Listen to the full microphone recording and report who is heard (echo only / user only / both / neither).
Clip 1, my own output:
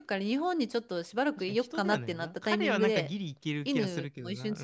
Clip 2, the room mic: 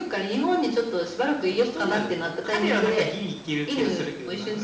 echo only